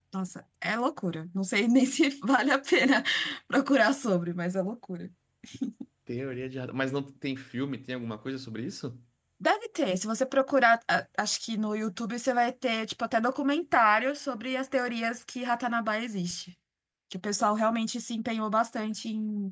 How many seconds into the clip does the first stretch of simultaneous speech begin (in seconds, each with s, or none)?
none